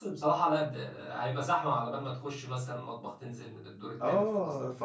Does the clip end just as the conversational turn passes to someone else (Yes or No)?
Yes